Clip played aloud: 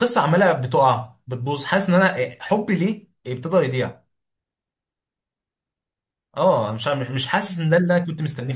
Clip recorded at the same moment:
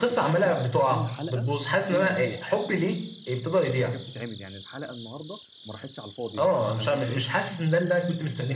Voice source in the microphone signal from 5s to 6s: user only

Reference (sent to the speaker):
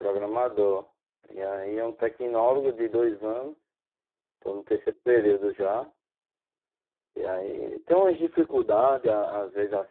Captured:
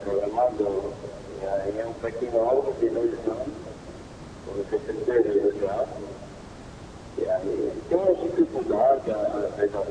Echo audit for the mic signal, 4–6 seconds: echo only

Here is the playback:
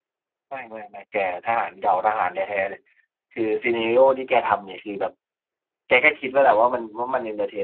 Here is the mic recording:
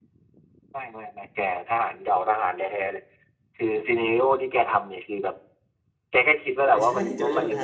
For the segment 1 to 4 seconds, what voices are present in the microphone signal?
echo only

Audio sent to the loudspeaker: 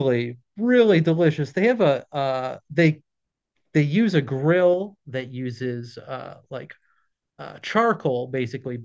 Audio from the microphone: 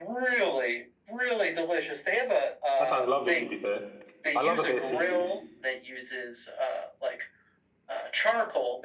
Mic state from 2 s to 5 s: both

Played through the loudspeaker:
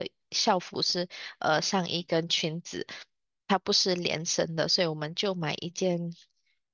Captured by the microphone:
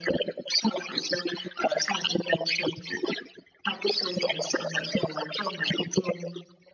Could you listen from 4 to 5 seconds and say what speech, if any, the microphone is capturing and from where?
echo only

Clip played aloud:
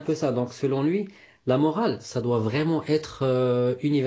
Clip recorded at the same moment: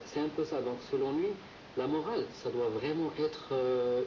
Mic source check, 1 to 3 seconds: echo only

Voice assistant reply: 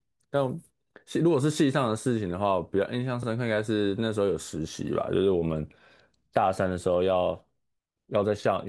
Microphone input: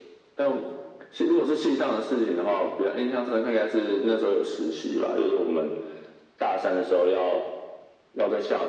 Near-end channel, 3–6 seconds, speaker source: echo only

